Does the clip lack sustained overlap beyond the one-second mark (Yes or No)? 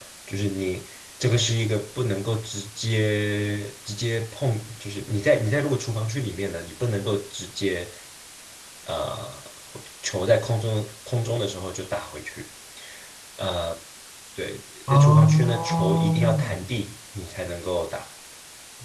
No